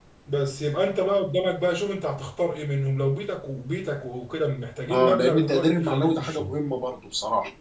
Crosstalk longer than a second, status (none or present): present